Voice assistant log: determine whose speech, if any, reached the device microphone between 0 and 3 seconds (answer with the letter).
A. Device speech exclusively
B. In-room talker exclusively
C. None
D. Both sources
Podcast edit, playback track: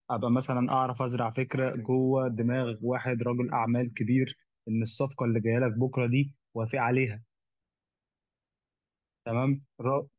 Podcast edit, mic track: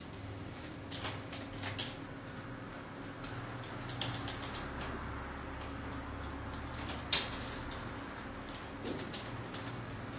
C